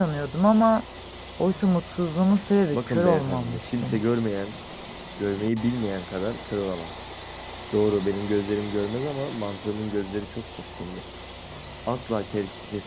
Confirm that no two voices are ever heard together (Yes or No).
No